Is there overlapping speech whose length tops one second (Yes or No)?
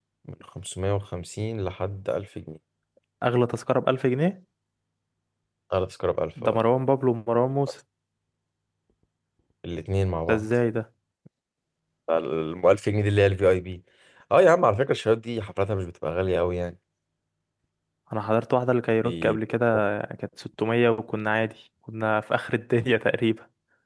No